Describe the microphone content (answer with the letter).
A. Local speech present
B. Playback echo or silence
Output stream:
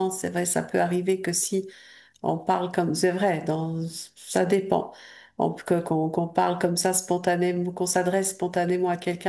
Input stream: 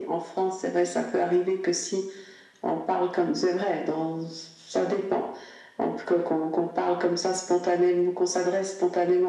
B